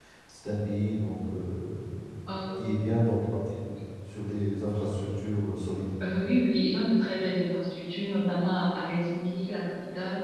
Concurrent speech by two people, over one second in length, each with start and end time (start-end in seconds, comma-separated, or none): none